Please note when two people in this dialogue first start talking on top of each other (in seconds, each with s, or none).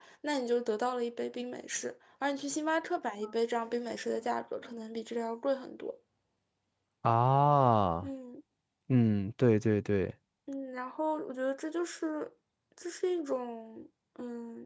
none